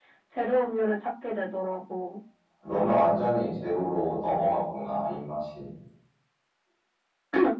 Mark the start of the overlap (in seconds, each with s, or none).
none